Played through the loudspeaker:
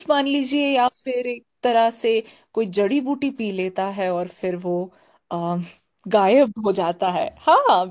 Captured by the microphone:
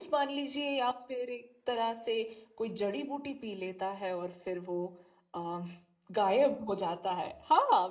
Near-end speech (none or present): none